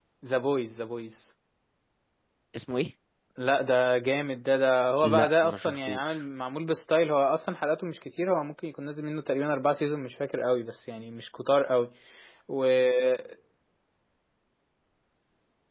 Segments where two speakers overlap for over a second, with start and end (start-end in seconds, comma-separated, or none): 5.0-6.2